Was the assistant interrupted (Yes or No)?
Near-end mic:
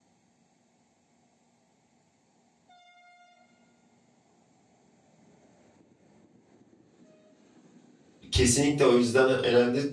Yes